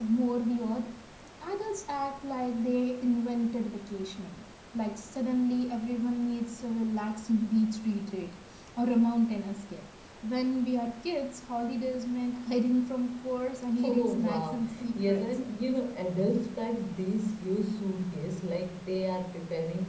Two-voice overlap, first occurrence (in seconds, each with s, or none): 13.8 s